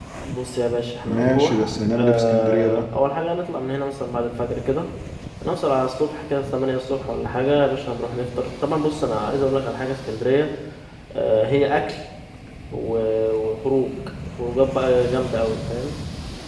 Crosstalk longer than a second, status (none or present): present